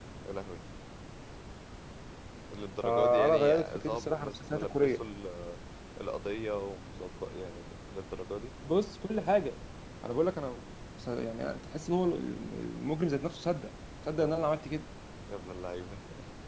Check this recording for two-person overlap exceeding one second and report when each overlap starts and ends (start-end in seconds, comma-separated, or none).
2.8-5.0